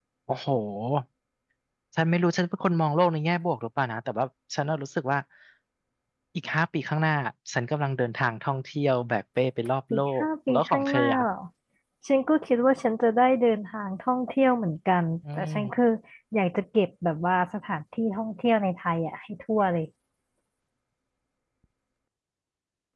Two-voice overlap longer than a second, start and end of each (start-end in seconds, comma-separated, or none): 9.9-11.2